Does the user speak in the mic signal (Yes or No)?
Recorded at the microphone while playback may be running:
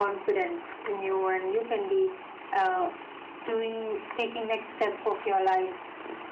No